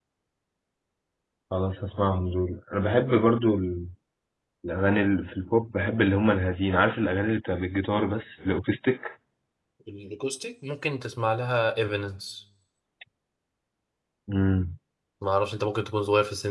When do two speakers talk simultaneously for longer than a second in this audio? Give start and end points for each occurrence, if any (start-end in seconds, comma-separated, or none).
none